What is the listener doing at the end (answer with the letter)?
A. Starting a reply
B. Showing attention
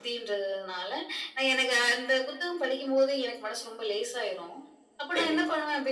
B